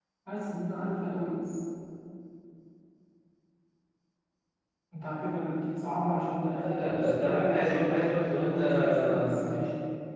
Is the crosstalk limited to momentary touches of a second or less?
No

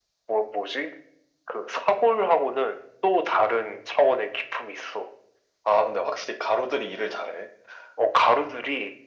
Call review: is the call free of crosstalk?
Yes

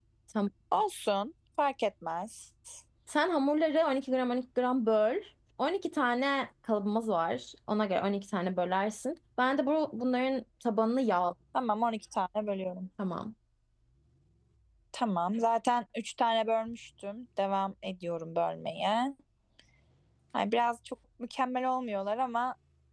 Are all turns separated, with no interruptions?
Yes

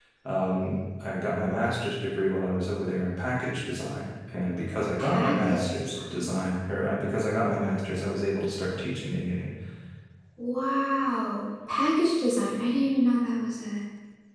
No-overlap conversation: No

